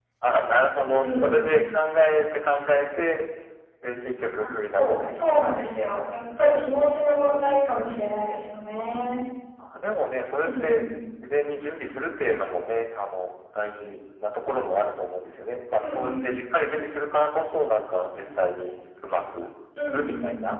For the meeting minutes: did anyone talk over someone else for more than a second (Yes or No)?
Yes